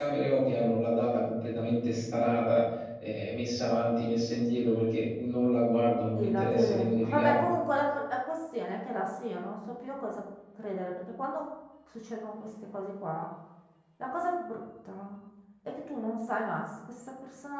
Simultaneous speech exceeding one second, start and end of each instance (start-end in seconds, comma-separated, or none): 6.2-7.5